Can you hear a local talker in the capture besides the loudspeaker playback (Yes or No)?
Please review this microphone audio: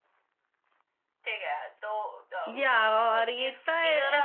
Yes